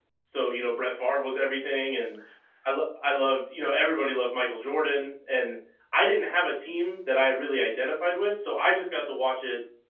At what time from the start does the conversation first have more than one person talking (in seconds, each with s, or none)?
none